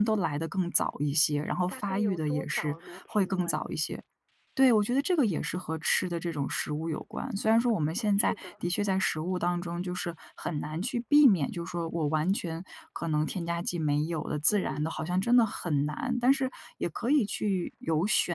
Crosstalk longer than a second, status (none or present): present